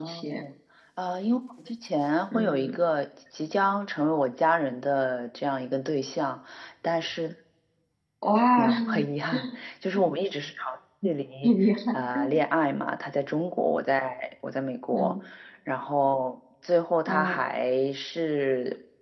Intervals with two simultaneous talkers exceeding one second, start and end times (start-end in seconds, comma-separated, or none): none